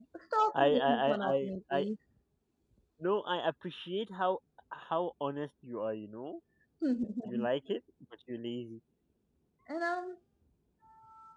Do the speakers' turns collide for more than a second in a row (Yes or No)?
Yes